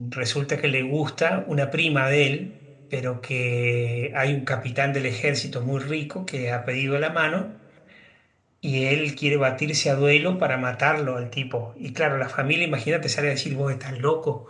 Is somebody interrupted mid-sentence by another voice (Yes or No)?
No